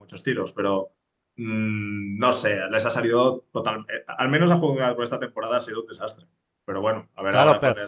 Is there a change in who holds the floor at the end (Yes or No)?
Yes